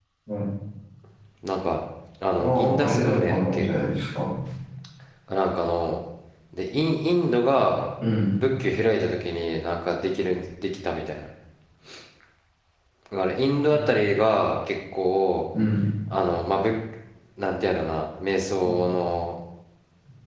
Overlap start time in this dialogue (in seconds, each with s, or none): 2.4 s